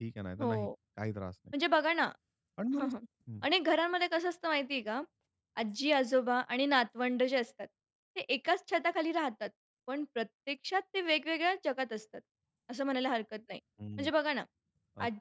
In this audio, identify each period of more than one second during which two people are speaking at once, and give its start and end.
none

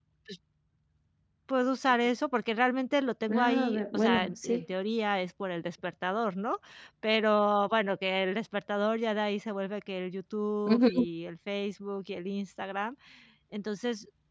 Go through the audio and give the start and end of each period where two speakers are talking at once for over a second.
3.3-4.6

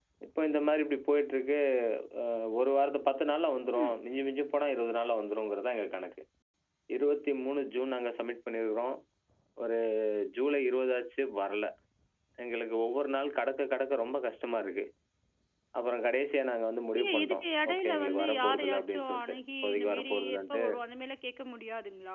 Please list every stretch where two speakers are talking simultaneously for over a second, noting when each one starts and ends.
17.0-20.6

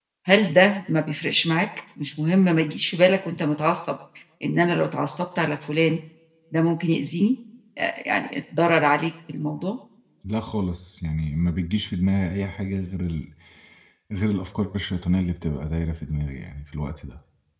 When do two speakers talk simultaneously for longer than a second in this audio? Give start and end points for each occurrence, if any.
none

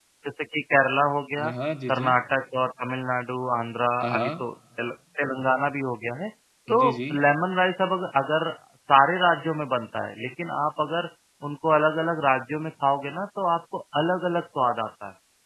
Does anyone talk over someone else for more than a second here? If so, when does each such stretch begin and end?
none

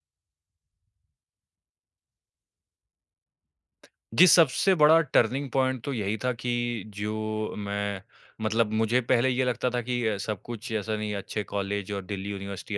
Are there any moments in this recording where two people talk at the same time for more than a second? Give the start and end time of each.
none

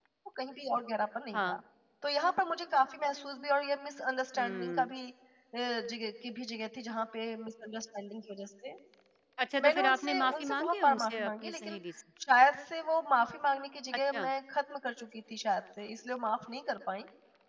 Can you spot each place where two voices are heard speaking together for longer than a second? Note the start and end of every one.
9.6-11.8

